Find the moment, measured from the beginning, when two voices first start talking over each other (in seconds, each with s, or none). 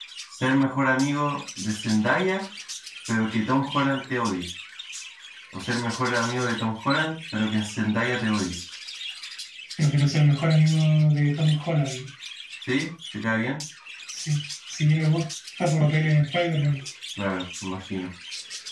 none